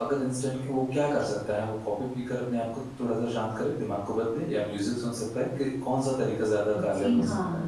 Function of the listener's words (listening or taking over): taking over